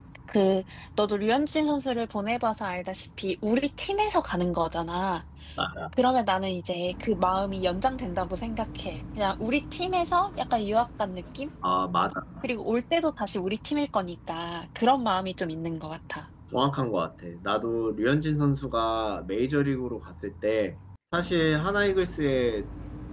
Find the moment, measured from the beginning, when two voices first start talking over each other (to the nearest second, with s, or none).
none